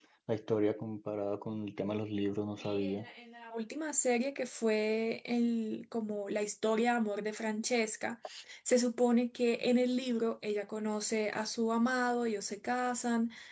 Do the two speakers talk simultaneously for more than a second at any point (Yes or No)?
No